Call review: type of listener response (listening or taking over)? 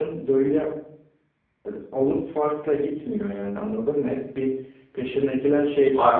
listening